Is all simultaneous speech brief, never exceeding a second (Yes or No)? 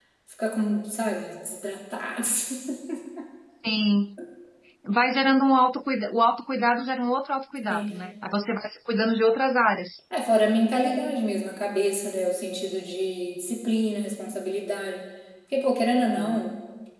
Yes